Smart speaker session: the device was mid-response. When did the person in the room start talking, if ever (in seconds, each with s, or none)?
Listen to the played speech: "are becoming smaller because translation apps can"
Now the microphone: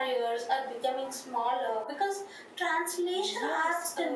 3.1 s